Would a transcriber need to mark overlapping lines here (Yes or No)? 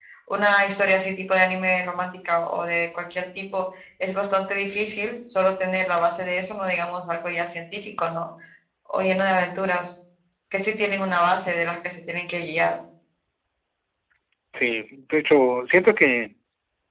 No